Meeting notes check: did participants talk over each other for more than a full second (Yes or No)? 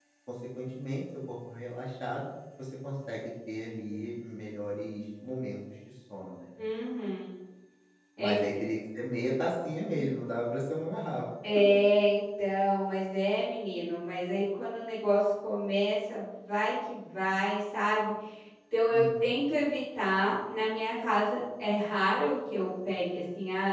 No